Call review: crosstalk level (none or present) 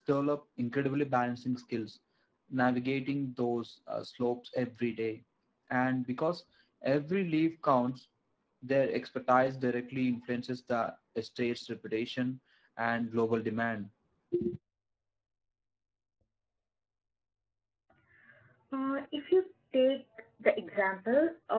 none